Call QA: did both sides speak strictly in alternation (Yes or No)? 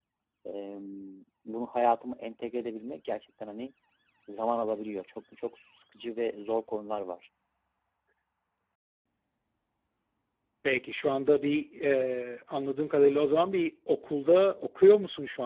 Yes